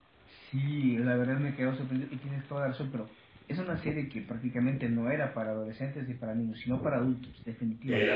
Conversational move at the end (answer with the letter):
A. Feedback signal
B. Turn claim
B